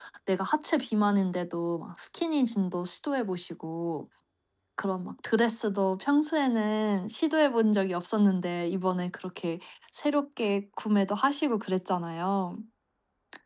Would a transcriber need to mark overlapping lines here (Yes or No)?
No